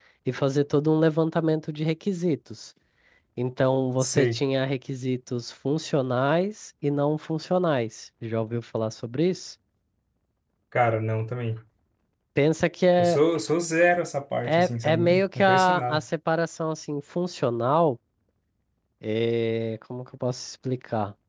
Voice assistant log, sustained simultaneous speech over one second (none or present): present